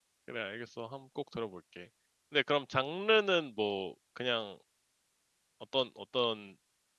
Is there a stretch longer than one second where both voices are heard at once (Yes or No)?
No